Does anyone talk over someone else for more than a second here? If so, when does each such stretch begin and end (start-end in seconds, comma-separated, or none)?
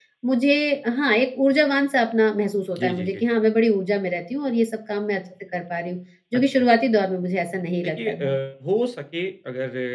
none